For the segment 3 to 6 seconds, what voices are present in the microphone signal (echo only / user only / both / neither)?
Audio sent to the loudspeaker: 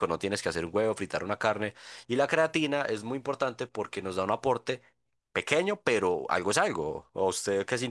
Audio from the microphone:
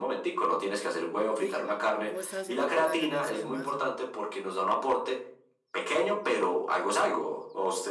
both